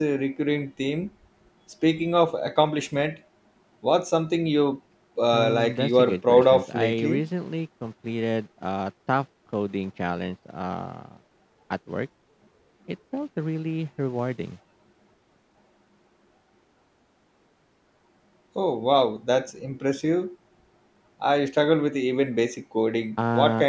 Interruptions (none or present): present